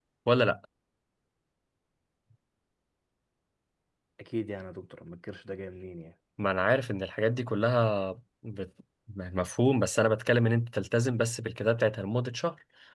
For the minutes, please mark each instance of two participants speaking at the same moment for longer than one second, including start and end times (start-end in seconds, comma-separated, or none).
none